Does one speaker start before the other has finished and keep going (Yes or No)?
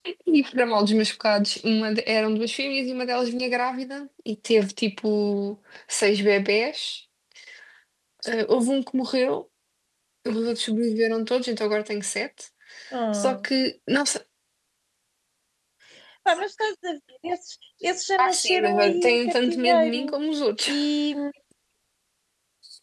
Yes